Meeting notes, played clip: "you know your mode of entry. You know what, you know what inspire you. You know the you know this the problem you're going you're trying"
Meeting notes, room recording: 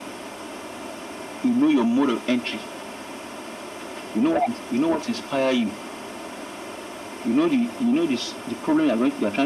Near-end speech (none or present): none